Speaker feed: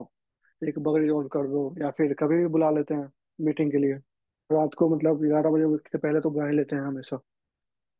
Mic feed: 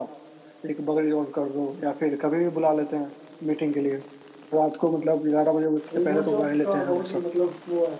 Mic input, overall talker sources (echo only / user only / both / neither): both